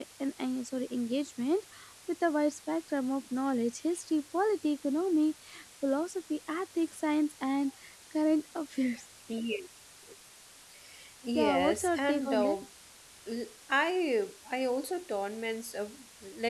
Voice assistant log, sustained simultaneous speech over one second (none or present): present